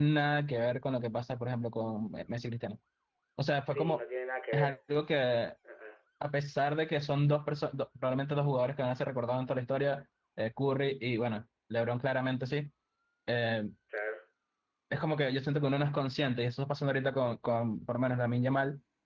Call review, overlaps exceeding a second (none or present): none